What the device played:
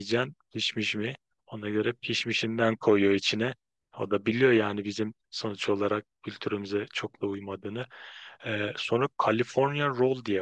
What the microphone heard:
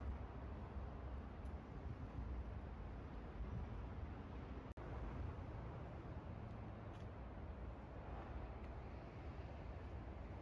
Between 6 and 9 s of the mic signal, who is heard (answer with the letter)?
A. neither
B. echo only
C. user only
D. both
A